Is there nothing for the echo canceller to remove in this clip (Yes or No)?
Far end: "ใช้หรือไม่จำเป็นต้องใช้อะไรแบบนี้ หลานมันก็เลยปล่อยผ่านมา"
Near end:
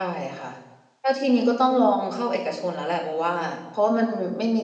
Yes